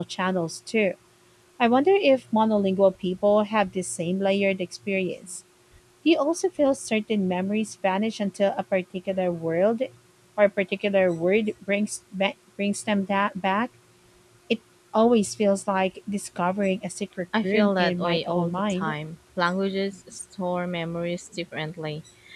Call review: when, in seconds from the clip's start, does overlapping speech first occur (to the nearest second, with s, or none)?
17 s